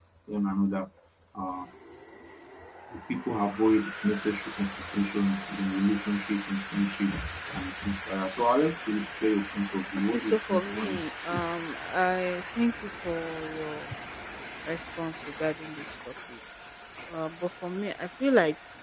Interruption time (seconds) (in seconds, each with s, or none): 10.1 s